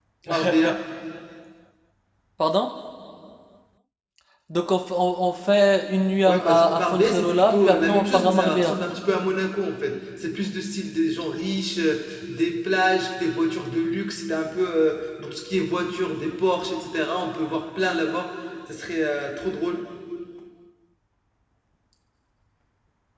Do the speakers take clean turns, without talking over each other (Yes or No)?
No